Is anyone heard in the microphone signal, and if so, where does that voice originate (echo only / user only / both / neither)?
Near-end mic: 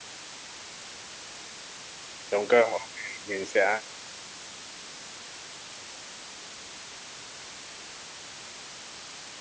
user only